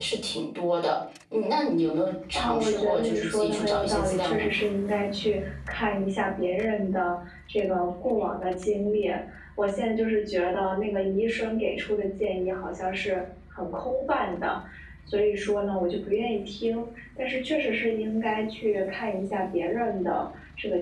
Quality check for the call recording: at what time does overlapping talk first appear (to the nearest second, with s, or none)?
2 s